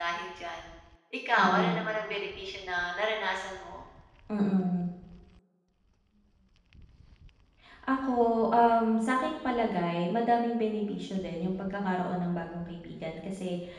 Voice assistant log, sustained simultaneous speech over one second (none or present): none